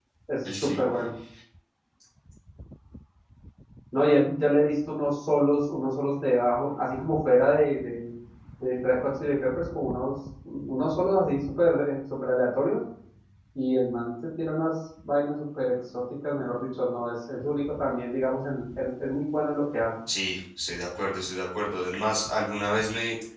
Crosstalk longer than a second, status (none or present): none